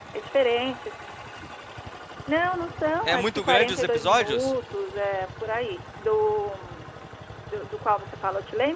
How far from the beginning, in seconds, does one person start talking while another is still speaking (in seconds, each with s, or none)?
3.1 s